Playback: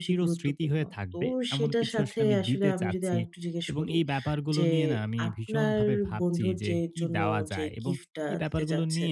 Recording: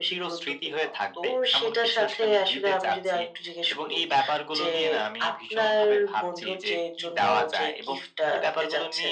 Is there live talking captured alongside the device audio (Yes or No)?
No